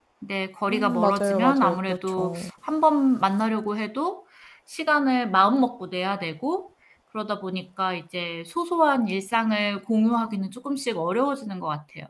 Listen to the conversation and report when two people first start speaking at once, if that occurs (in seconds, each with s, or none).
0.7 s